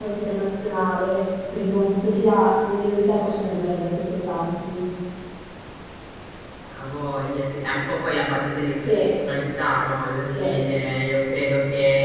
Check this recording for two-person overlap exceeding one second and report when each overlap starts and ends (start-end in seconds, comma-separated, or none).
none